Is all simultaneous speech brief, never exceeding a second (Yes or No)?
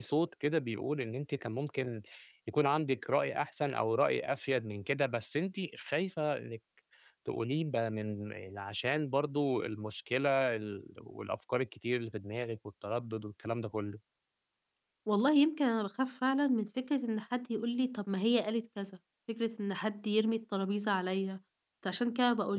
Yes